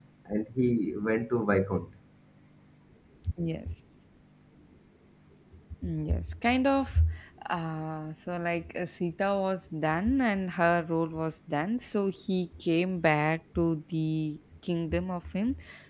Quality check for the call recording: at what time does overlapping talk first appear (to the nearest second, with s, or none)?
none